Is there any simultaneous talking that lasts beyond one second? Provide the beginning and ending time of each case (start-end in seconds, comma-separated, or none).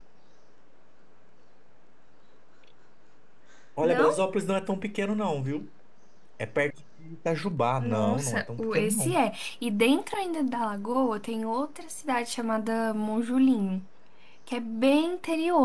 7.8-9.2